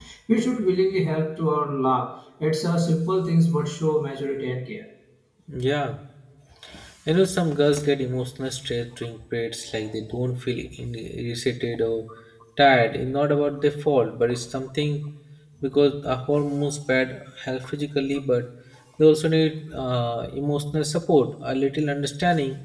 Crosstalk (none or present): none